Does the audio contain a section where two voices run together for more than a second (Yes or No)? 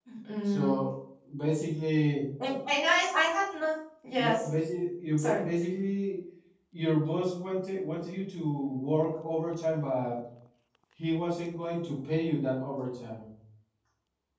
No